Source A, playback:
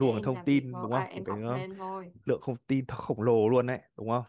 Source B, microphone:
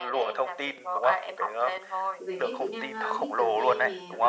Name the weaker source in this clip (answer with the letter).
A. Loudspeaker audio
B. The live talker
B